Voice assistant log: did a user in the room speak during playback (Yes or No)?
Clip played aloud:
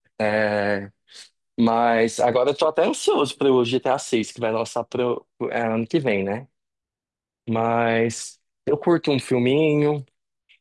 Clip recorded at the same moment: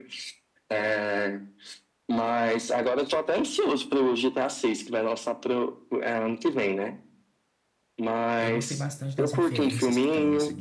Yes